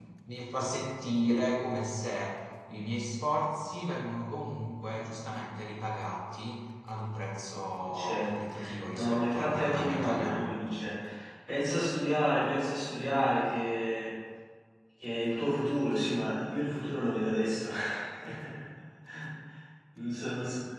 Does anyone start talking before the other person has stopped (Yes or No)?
Yes